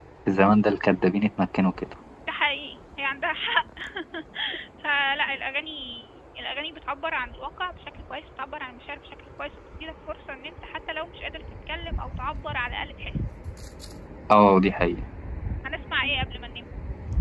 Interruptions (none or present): none